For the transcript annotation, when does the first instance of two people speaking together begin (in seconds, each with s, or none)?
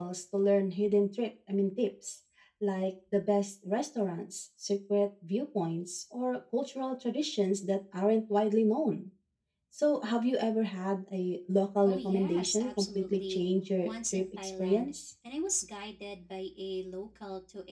11.8 s